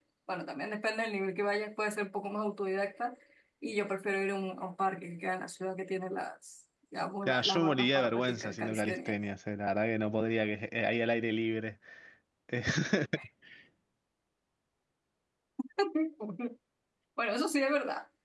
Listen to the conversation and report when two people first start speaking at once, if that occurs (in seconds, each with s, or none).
7.3 s